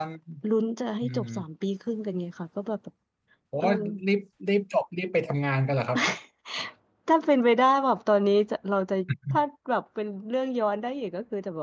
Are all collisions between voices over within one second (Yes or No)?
Yes